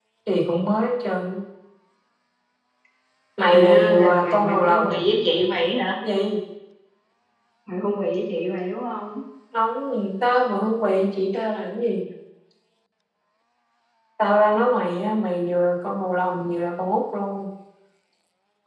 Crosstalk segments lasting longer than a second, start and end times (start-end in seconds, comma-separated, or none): 3.5-5.0